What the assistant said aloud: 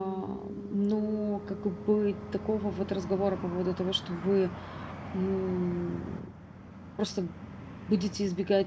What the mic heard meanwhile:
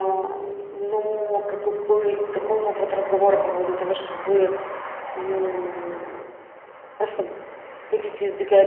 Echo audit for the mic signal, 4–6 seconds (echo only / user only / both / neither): echo only